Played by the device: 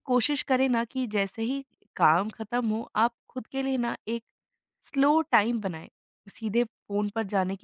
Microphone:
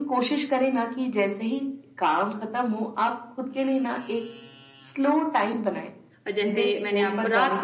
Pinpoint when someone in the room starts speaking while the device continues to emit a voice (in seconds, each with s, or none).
6.2 s